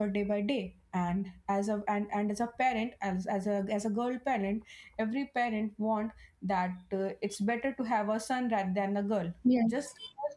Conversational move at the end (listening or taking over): listening